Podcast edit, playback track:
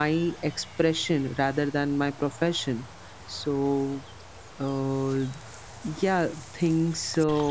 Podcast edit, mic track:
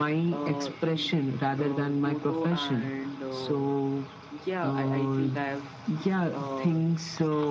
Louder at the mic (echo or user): echo